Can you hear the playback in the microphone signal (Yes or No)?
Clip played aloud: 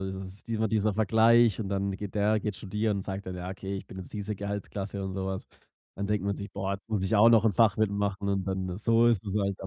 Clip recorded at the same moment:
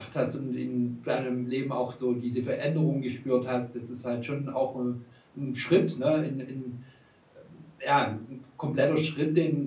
No